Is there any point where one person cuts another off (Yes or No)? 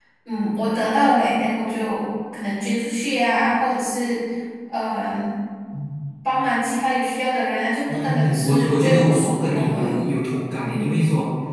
Yes